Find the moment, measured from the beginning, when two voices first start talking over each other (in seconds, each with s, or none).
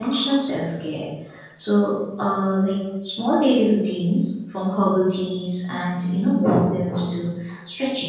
none